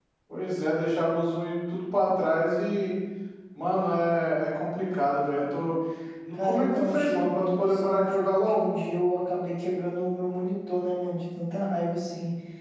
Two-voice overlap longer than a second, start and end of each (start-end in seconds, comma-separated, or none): 6.3-8.6